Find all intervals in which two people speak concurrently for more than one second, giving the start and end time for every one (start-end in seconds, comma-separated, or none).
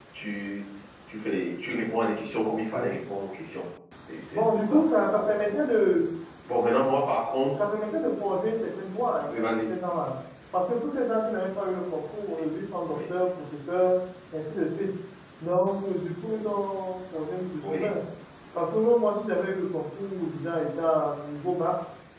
none